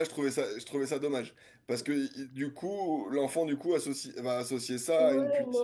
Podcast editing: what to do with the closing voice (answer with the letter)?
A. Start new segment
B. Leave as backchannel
A